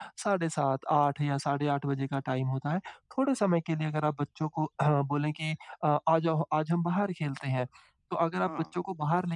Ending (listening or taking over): listening